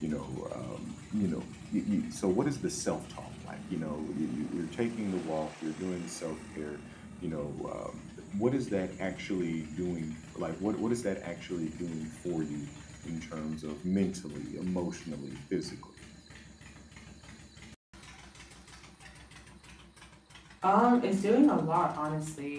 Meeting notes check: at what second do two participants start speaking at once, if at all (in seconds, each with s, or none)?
none